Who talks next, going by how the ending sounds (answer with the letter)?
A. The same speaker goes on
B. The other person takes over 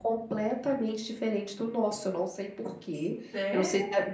A